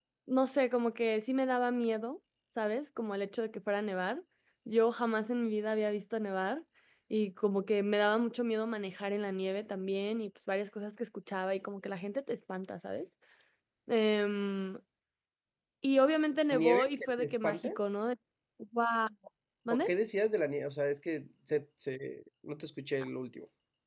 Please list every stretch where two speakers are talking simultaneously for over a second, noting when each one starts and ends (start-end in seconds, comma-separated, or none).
16.5-17.7